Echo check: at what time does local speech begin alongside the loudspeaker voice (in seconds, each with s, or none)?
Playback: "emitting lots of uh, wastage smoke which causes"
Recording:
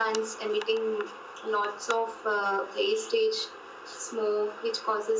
none